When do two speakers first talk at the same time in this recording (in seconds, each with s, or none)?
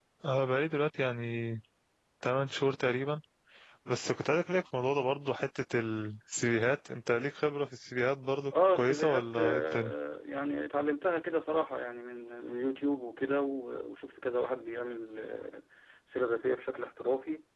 8.5 s